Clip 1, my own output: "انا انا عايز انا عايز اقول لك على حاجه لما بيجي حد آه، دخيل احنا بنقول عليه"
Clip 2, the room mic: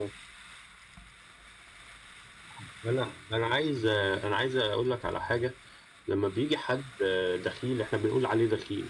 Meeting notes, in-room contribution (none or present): none